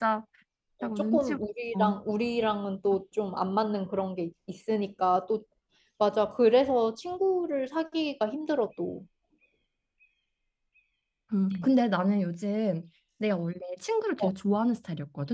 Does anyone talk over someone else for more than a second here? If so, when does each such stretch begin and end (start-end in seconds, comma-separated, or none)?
none